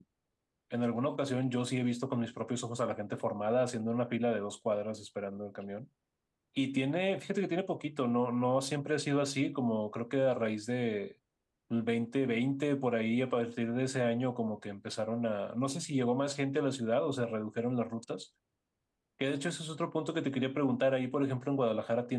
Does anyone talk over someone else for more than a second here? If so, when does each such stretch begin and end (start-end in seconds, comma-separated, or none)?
none